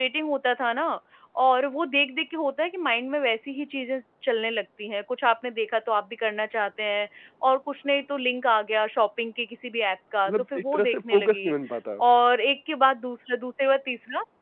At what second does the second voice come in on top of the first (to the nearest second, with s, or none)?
10 s